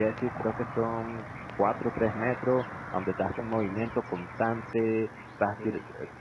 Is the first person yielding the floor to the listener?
No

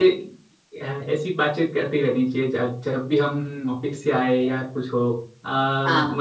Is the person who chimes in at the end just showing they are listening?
Yes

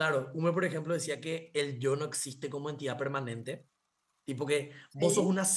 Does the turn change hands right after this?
No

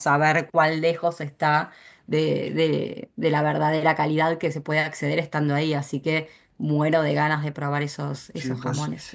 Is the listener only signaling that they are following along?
No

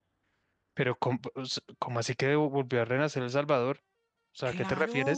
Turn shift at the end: Yes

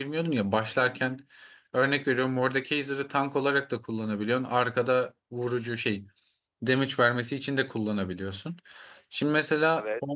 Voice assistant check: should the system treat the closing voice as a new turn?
No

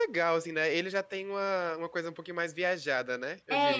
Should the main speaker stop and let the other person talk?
Yes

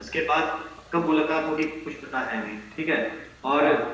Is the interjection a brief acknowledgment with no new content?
Yes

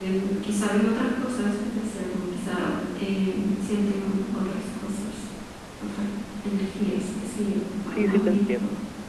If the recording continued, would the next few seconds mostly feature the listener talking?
Yes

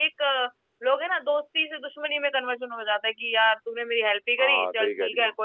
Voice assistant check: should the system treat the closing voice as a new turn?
Yes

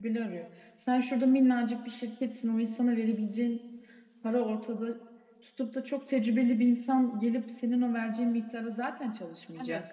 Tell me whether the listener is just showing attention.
No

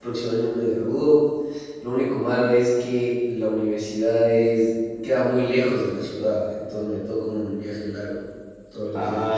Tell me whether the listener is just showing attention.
No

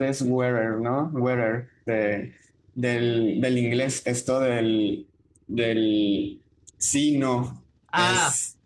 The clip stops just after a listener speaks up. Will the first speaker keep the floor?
No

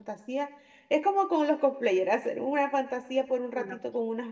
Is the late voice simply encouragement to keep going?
Yes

